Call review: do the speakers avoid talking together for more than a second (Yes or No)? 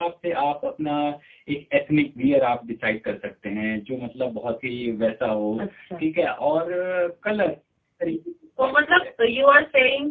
Yes